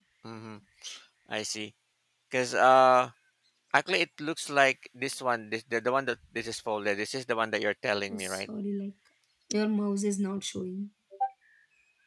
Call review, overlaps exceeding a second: none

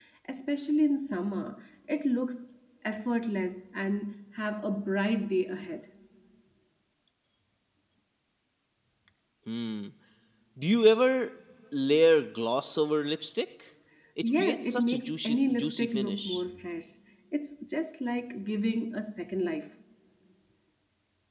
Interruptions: present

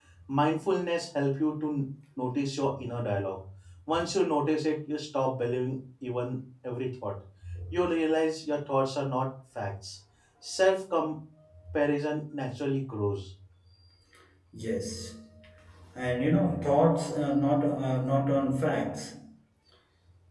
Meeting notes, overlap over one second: none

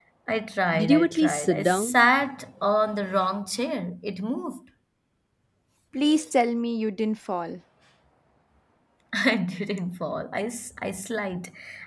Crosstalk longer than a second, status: present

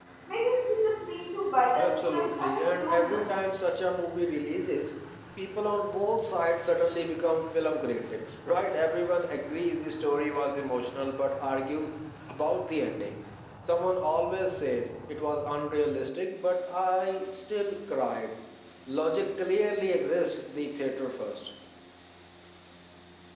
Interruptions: present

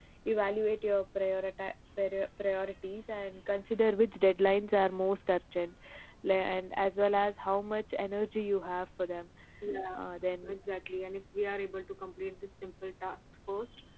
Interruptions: none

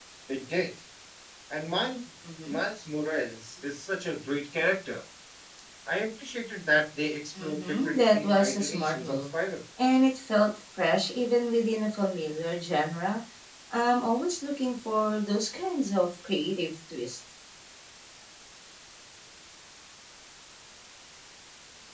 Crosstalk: present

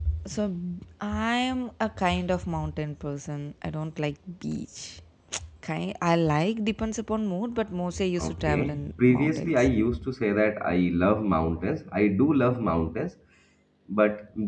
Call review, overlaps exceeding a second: present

